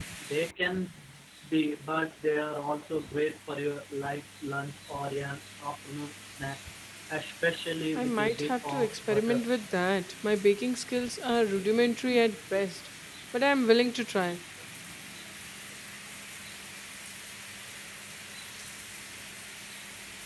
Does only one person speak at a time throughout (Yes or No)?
No